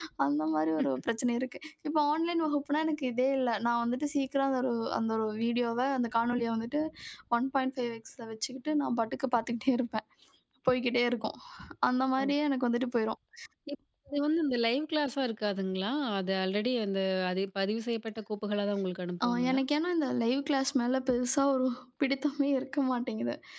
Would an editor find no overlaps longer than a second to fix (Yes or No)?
Yes